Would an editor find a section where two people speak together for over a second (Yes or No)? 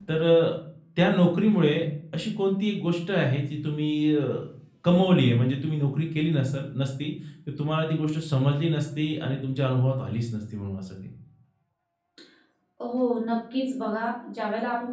No